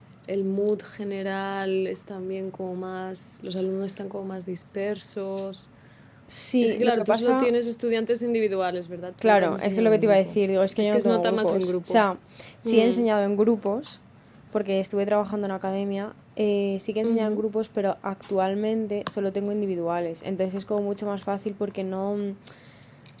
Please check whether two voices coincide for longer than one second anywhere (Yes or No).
Yes